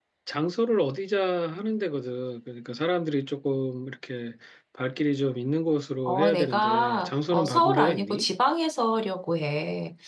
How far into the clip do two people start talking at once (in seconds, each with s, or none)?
6.0 s